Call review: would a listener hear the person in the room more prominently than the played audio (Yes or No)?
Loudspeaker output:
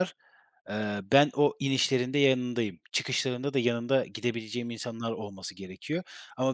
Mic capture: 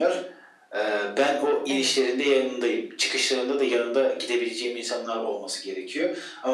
No